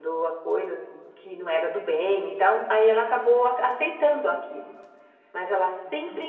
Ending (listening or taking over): listening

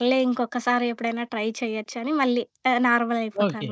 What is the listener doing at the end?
taking over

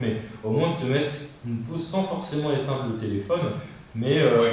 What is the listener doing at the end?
listening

